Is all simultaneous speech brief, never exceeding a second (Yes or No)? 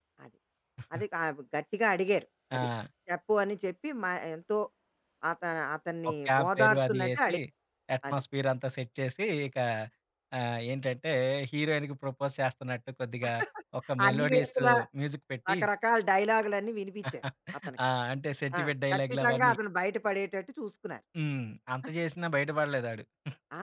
No